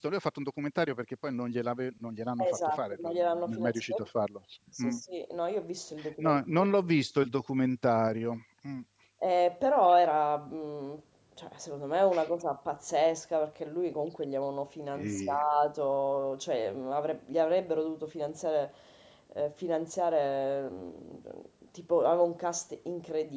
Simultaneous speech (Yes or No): Yes